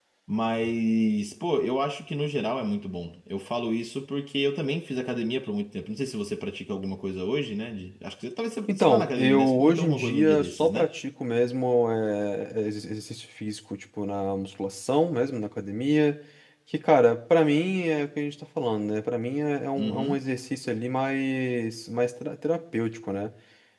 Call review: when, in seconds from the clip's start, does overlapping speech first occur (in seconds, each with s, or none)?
8.7 s